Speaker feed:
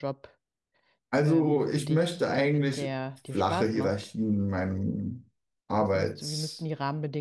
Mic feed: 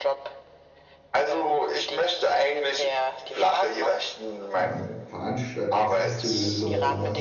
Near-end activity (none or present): present